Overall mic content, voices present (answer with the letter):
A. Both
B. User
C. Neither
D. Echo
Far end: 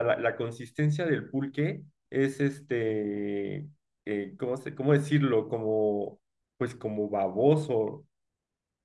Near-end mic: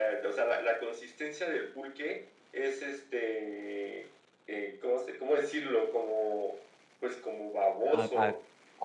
A